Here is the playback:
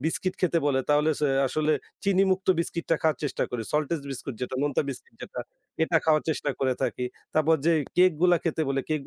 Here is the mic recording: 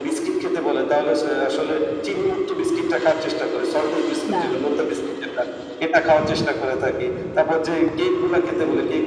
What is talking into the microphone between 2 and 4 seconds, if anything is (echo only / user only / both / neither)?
echo only